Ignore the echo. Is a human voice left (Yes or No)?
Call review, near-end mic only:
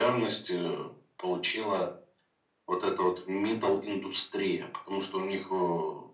No